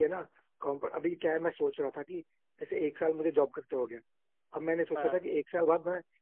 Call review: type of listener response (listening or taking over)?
listening